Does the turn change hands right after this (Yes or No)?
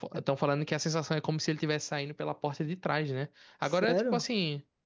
No